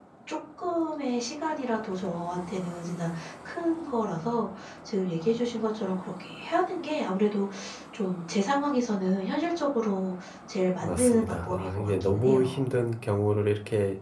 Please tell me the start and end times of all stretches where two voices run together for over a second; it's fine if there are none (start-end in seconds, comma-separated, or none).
10.8-12.6